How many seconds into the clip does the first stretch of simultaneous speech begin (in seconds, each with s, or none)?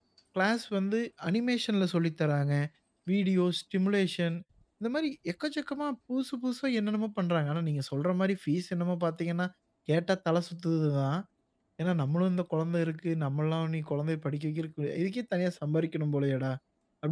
none